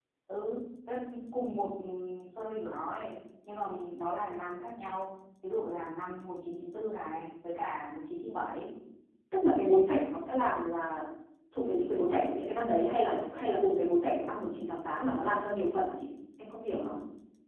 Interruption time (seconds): none

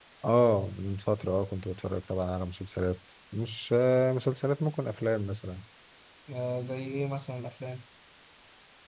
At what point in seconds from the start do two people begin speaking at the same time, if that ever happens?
none

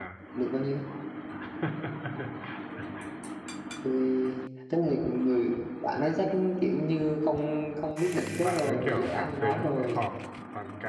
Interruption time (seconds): 8.0 s

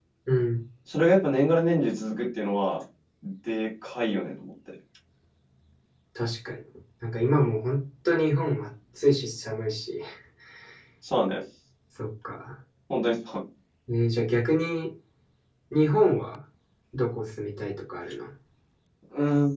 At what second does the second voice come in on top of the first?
none

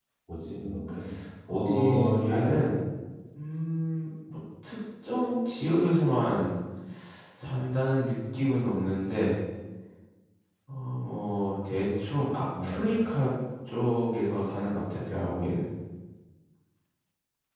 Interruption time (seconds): 1.5 s

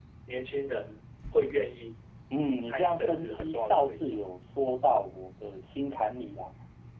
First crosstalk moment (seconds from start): 2.6 s

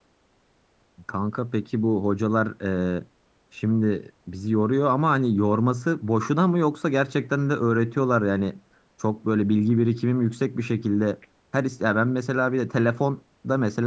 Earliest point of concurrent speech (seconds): none

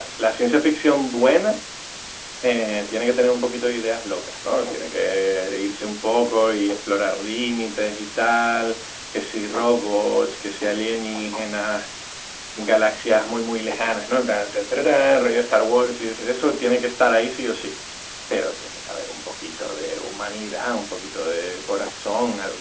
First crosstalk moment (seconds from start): none

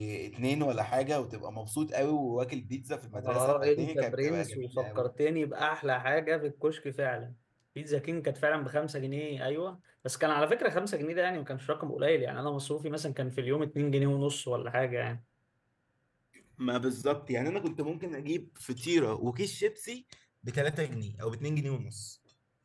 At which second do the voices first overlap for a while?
3.1 s

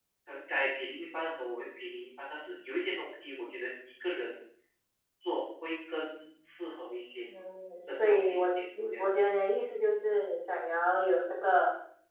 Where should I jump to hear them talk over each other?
7.9 s

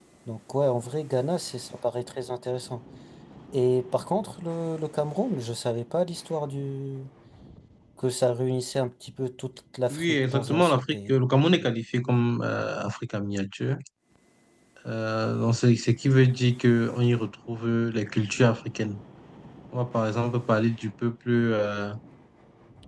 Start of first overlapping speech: 9.9 s

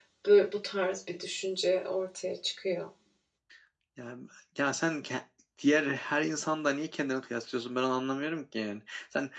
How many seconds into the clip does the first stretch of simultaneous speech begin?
none

